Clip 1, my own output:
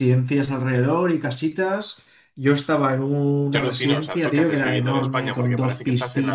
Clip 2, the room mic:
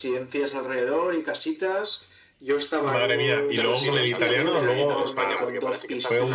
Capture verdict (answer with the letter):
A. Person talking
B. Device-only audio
A